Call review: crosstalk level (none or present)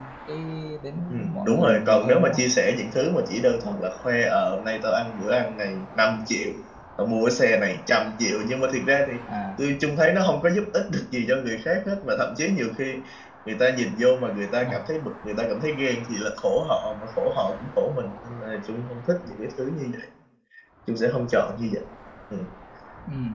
present